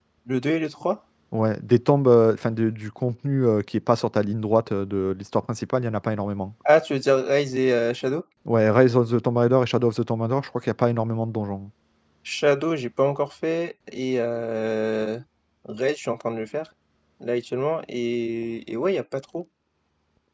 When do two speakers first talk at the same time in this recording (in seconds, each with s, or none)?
none